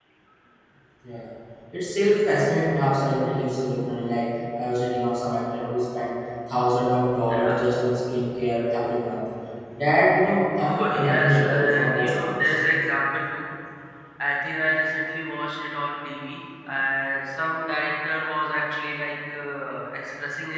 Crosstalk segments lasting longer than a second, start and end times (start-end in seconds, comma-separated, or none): 10.6-12.5